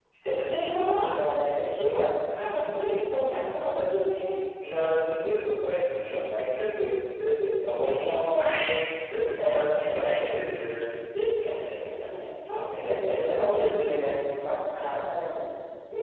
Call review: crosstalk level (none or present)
present